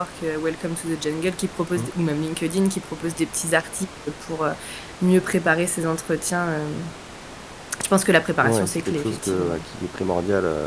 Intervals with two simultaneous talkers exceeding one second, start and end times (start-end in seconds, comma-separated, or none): 8.4-9.6